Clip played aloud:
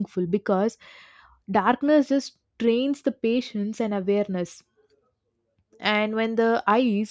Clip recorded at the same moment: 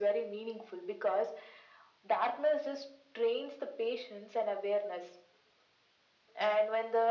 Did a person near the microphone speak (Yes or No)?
No